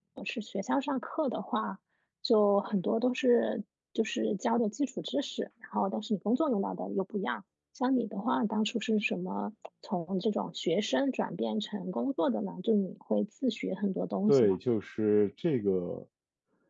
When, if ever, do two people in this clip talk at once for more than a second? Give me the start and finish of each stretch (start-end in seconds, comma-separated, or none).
none